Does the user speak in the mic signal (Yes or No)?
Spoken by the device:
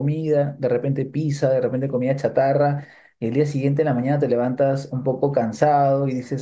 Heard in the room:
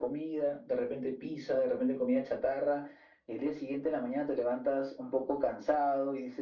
No